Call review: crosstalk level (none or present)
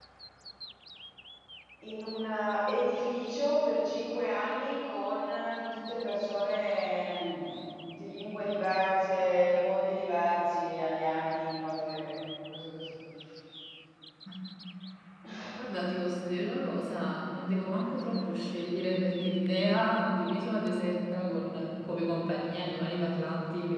none